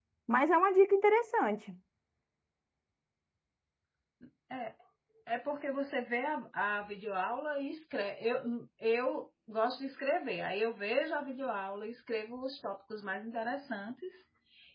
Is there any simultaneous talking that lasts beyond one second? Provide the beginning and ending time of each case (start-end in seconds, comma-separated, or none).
none